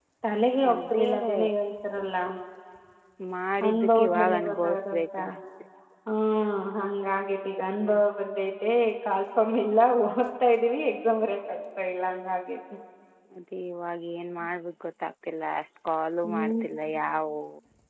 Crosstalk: present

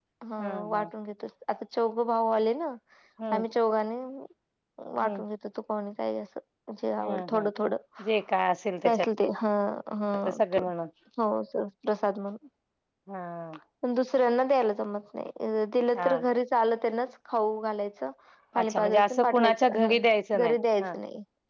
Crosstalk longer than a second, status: present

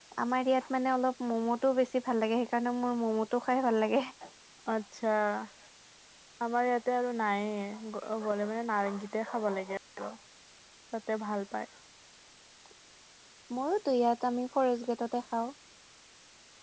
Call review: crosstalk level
none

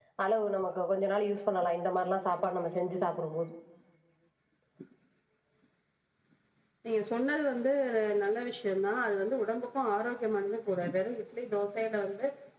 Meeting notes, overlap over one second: none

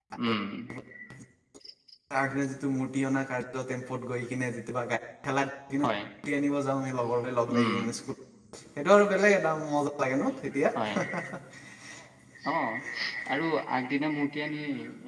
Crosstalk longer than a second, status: none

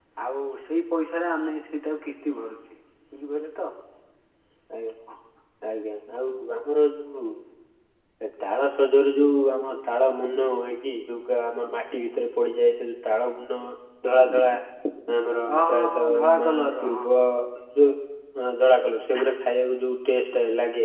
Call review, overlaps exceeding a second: present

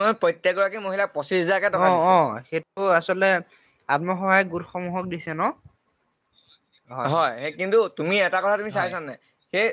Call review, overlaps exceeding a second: none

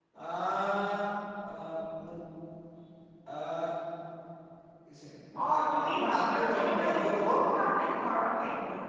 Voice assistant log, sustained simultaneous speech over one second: present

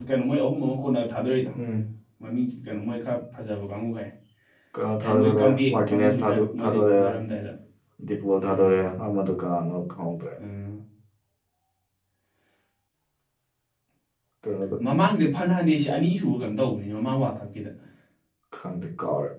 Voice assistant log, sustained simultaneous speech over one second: present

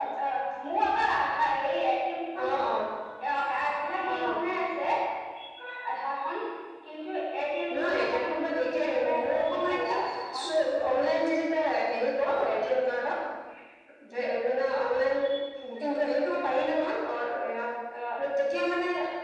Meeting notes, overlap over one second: present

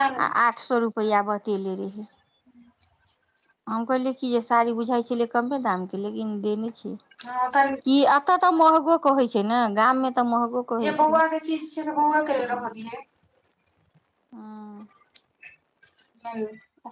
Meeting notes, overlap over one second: none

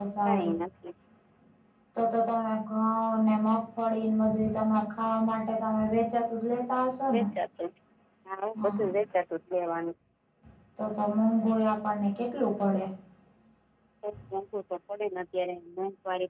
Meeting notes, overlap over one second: none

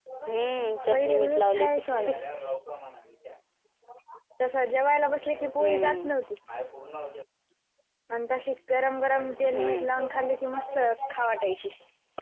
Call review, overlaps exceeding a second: present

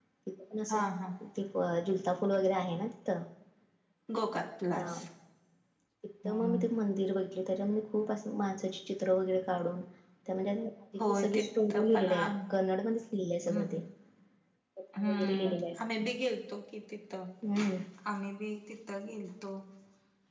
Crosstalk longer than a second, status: present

